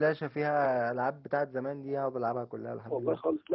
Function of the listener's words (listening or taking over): taking over